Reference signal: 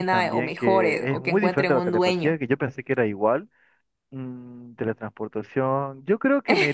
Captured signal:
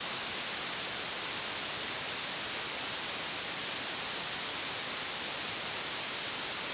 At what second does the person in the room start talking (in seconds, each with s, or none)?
none